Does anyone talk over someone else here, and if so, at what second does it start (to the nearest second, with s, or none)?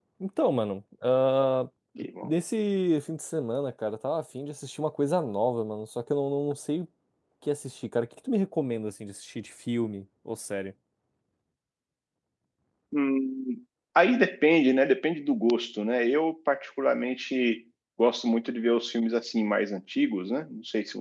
none